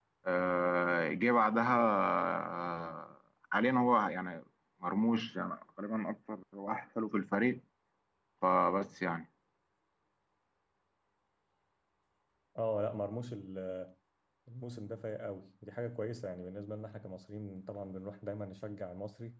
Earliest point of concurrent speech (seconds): none

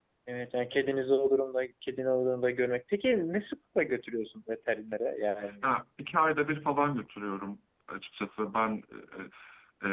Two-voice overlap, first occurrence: none

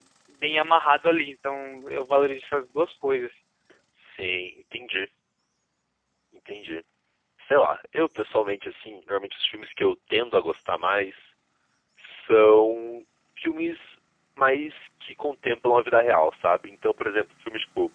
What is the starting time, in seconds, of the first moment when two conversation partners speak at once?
none

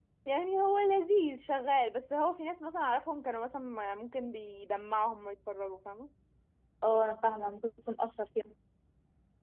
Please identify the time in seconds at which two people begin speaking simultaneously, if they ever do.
none

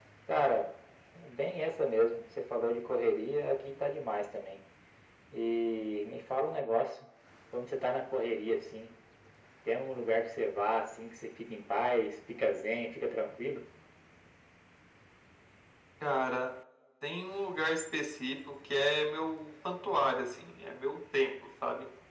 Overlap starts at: none

